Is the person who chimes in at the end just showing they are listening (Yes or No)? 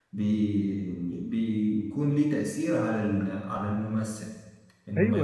No